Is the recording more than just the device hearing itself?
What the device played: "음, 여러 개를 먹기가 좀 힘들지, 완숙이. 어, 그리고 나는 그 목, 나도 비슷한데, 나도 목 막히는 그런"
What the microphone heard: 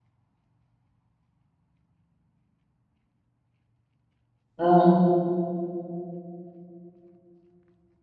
Yes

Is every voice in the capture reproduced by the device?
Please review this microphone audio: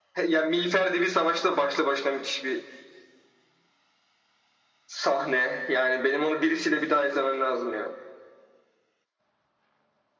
Yes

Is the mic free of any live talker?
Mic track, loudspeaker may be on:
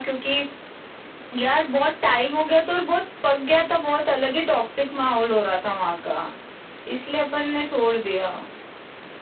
Yes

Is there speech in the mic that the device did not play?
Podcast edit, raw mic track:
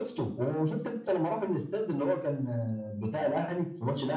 No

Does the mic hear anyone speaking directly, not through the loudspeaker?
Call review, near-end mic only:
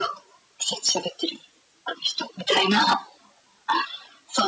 No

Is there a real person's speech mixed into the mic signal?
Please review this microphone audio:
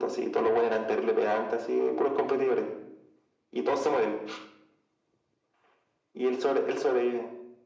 No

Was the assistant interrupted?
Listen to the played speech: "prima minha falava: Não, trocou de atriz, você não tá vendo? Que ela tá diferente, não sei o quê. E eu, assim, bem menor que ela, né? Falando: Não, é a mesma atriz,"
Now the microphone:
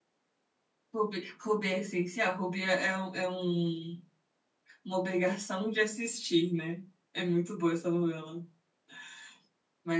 Yes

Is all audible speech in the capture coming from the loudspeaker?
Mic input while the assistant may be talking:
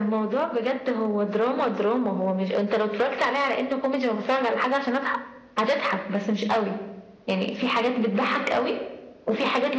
Yes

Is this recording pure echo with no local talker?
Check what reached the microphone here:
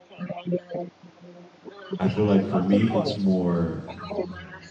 No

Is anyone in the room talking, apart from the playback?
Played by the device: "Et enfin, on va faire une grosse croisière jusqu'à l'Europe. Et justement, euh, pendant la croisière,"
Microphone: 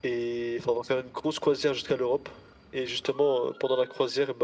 No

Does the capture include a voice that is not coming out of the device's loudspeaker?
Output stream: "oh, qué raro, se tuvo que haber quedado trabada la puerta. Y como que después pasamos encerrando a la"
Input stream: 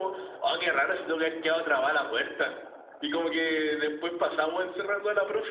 No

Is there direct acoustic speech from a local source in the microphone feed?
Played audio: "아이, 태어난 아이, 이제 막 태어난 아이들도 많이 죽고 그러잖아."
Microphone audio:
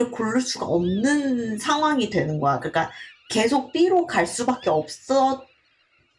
Yes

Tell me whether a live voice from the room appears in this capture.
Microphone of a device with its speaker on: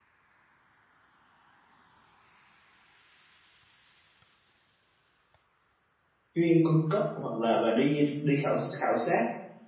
Yes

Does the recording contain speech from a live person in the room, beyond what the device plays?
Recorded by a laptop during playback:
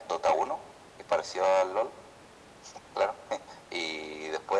No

